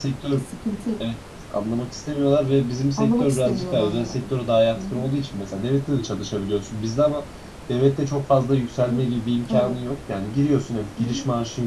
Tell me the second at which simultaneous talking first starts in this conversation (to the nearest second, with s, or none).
3 s